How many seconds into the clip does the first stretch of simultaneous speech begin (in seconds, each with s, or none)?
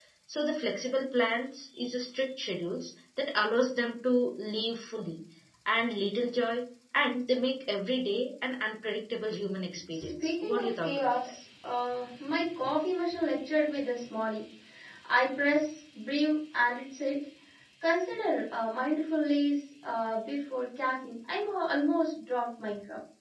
9.9 s